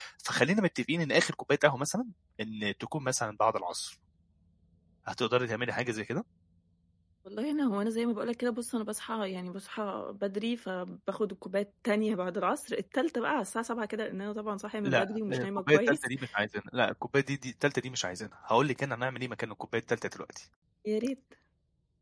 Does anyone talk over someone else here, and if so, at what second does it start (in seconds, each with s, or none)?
14.8 s